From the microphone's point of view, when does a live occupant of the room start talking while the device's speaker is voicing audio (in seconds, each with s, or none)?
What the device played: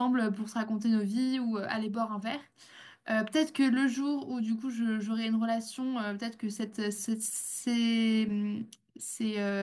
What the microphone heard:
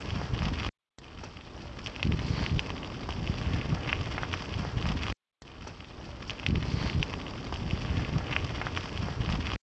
none